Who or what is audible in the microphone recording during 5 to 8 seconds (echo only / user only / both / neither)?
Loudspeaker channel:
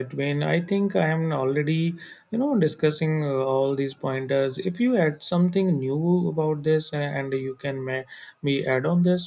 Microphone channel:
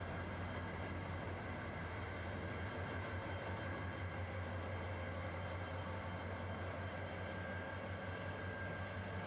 neither